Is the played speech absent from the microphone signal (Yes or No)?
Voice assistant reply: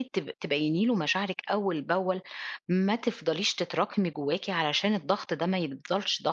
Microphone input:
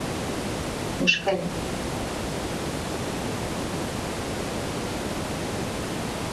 Yes